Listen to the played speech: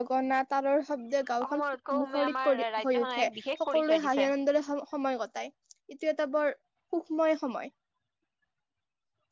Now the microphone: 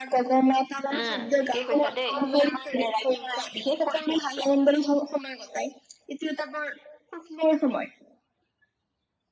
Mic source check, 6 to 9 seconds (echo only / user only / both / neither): echo only